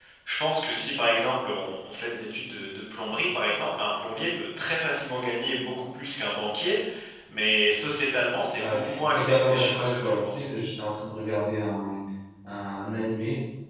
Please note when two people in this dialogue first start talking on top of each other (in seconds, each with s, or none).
8.6 s